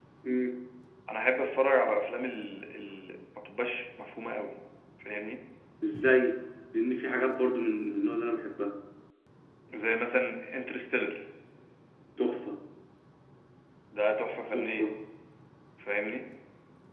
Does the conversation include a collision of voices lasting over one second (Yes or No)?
No